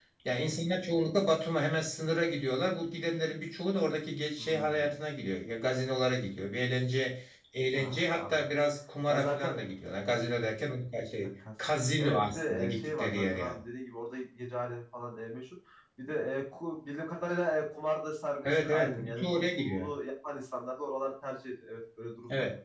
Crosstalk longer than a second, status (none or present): present